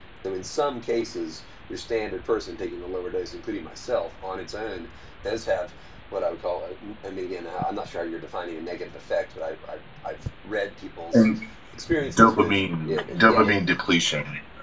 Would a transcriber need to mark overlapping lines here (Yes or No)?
Yes